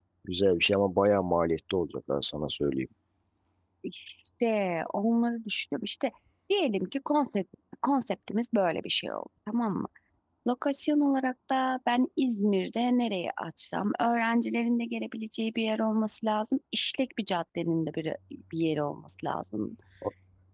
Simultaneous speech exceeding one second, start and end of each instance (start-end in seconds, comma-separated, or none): none